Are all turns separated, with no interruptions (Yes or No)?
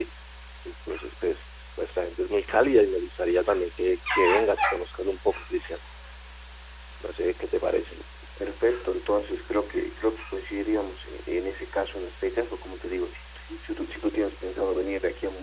Yes